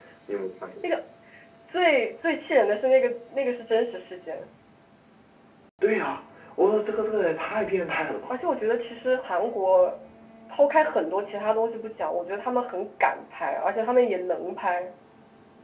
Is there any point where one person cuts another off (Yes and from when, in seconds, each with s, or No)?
No